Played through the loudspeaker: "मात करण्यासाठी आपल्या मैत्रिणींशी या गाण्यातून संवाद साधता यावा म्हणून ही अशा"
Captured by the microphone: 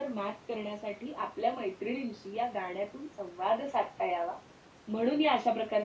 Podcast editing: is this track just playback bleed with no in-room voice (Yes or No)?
Yes